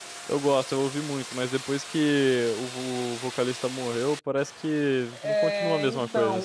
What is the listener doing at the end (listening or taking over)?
taking over